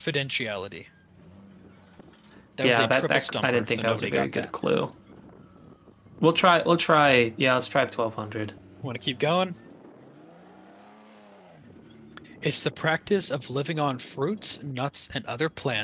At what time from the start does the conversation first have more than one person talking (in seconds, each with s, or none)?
2.6 s